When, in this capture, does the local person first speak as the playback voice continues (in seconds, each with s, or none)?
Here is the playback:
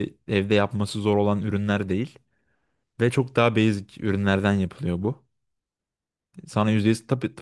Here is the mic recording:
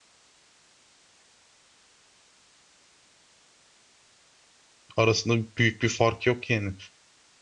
5.0 s